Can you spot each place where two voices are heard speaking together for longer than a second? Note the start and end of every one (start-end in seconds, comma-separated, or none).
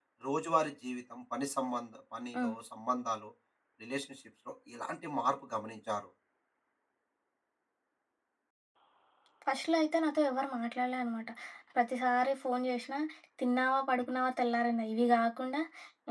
none